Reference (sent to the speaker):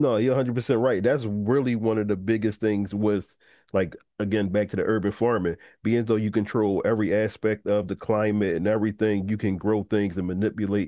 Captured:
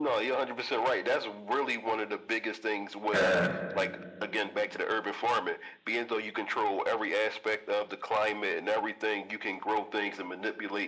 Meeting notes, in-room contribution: present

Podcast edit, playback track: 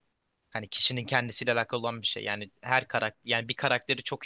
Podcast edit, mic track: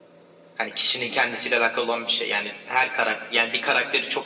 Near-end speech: none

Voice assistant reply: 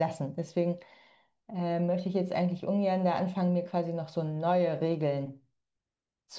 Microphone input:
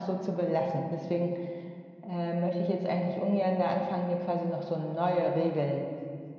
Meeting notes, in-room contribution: none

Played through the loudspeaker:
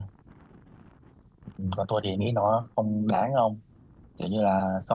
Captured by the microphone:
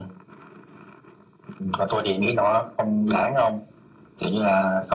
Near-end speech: none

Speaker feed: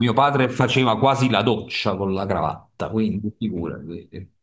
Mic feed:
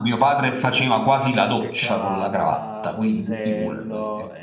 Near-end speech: present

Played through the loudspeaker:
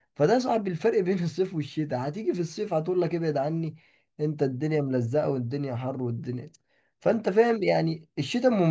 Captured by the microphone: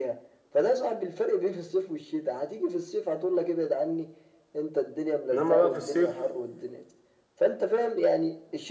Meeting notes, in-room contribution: present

